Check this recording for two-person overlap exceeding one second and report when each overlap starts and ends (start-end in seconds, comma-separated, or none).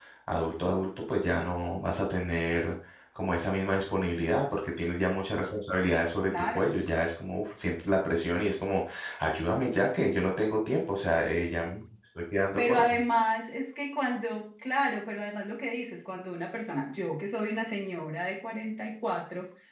none